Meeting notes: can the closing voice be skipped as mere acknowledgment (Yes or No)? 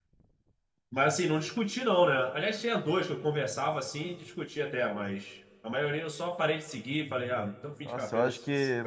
No